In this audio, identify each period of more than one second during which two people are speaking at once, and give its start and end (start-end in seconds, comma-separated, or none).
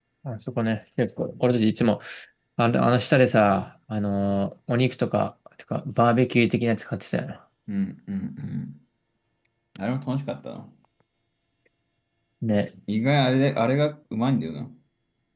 none